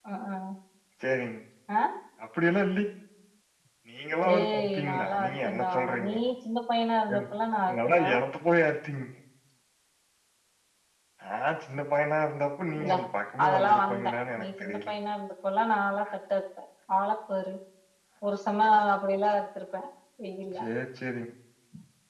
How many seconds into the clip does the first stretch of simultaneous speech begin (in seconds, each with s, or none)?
4.3 s